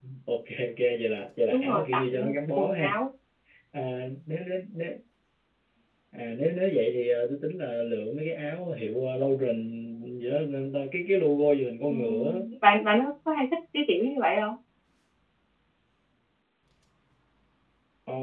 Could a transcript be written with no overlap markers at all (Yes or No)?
No